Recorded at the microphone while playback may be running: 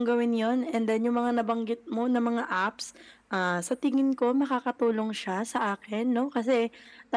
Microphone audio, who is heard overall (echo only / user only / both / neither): echo only